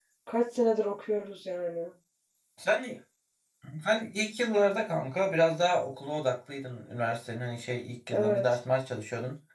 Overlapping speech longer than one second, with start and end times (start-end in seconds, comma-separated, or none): none